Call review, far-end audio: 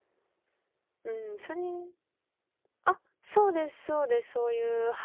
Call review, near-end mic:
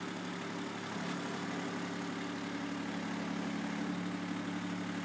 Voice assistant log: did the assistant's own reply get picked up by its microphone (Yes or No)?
No